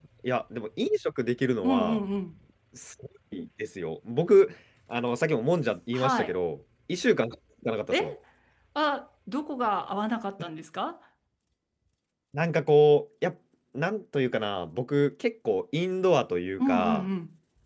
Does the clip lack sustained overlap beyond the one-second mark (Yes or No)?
Yes